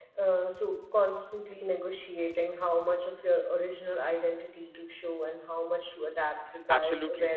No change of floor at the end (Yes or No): No